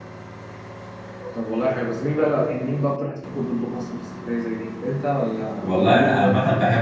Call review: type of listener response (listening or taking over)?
taking over